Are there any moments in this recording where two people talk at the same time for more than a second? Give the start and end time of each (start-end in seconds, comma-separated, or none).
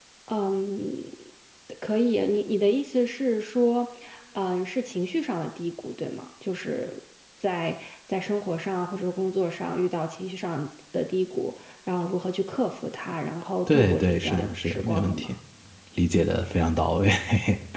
13.7-15.3